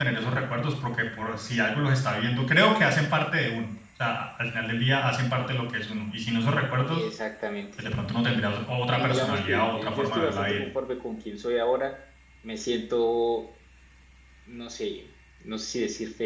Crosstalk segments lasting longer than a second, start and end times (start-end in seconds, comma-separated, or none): 9.0-10.6